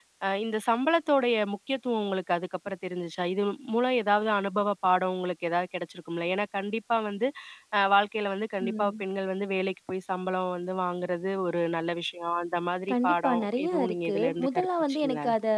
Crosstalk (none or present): present